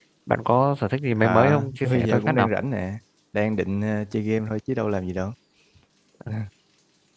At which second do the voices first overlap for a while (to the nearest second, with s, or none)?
1 s